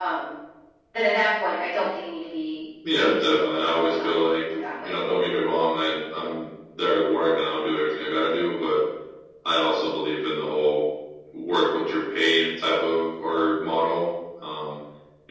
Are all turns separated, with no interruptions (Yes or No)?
No